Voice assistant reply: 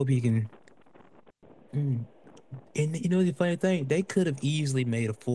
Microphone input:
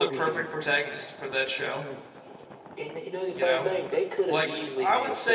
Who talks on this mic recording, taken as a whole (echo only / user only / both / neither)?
both